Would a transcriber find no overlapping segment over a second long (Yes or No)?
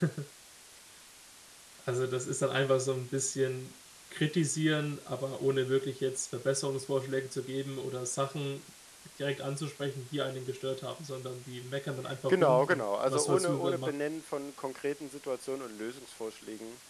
No